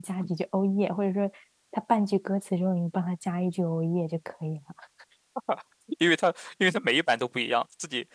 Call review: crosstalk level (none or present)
none